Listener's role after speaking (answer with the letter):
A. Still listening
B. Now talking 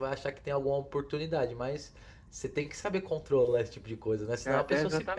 B